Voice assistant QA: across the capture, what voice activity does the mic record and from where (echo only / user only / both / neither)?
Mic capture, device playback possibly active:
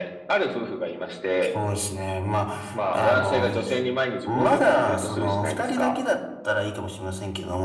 echo only